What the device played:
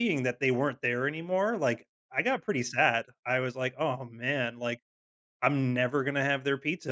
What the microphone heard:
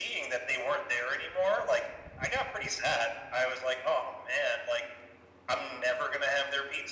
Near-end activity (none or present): none